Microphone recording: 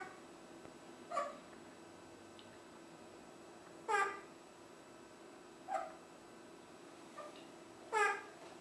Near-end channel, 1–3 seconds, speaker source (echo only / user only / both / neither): neither